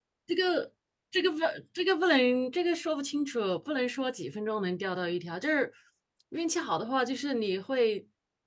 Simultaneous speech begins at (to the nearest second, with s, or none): none